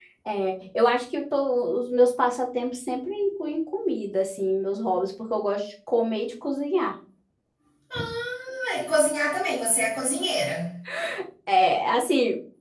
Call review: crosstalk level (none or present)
none